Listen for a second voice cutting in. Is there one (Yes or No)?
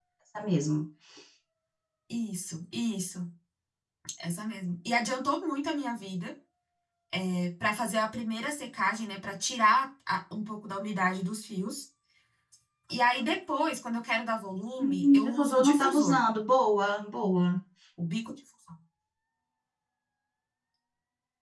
Yes